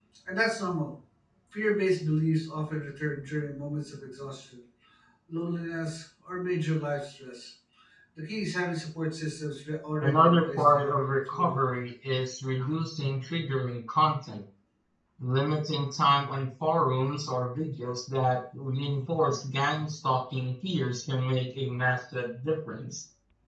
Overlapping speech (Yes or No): Yes